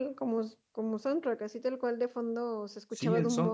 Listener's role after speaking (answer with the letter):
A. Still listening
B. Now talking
B